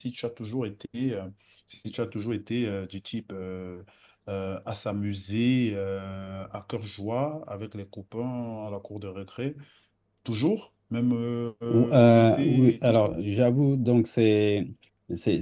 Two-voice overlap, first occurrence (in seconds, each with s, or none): 11.7 s